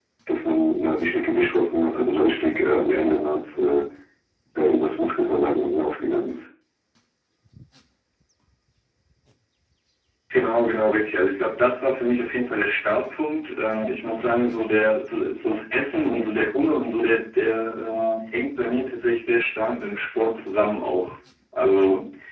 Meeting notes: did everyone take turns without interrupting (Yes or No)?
Yes